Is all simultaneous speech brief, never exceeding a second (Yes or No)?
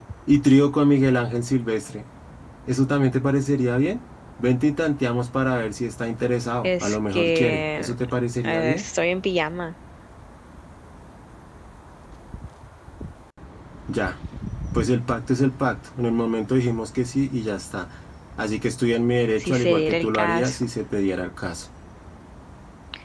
No